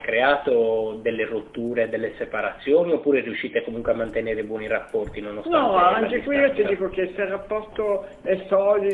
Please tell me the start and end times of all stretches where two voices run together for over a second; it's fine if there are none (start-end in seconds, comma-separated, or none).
5.5-6.8